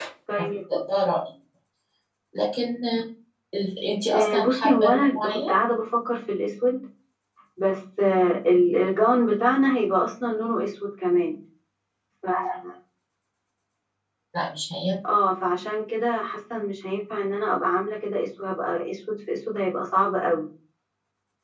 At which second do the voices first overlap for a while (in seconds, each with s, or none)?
4.1 s